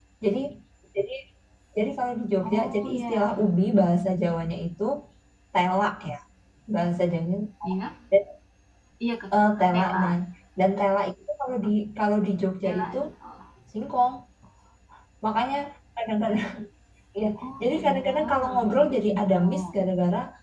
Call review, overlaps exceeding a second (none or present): present